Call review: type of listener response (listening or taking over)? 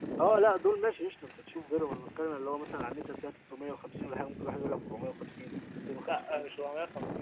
taking over